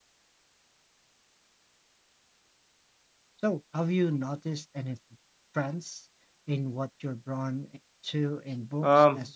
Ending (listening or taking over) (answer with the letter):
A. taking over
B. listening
A